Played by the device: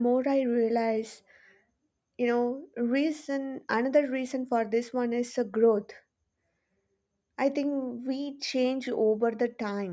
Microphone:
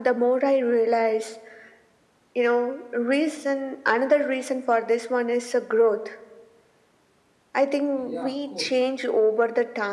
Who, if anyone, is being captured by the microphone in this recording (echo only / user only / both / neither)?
both